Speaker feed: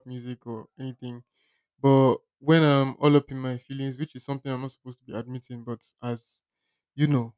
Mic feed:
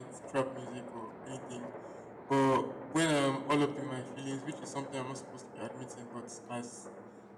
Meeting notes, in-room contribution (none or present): none